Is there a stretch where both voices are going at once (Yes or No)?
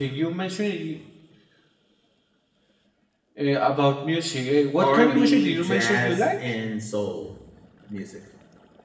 Yes